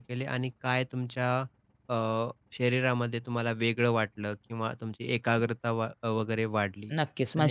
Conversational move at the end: taking over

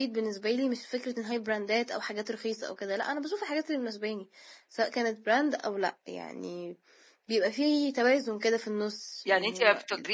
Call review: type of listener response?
taking over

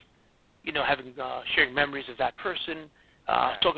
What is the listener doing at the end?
listening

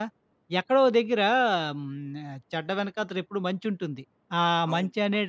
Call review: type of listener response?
listening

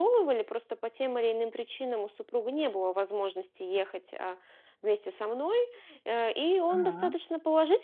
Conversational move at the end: listening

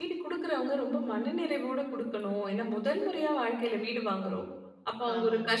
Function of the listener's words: listening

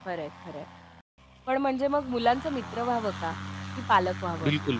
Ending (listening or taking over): taking over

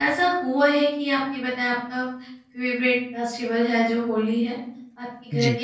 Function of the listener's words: listening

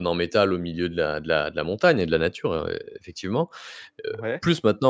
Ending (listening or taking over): listening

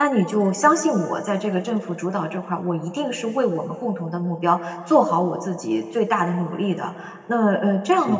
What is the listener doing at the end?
listening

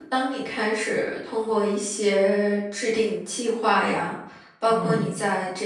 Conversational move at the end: listening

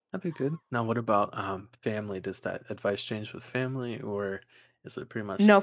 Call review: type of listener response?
taking over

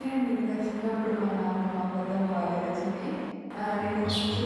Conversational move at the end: listening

